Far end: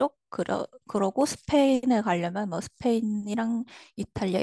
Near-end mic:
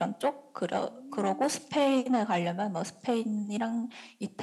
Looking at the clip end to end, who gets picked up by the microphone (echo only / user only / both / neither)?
both